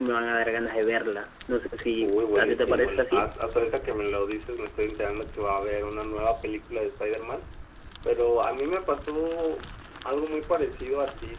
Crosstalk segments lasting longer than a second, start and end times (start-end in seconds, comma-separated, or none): 2.0-3.3